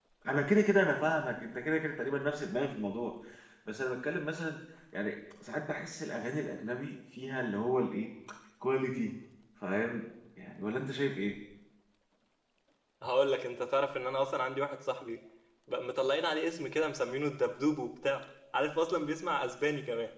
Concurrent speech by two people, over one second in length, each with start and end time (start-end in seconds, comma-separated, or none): none